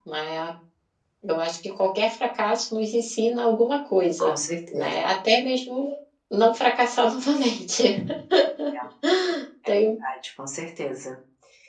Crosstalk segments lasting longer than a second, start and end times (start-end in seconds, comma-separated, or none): none